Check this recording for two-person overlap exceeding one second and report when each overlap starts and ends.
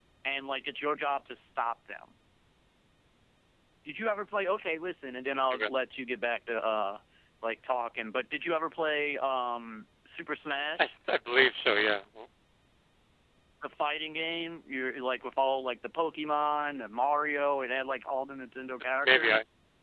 none

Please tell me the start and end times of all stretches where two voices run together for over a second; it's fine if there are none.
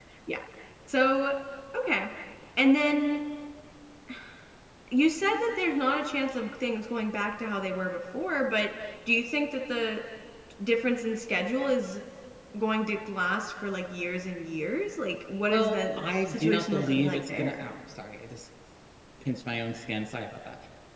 15.5-17.6

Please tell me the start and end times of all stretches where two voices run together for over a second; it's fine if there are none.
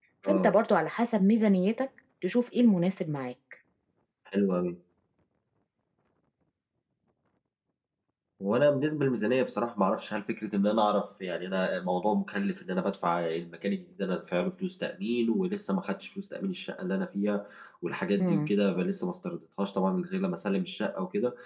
none

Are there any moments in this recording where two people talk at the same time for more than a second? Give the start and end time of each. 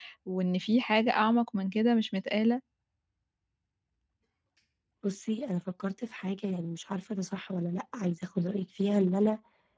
none

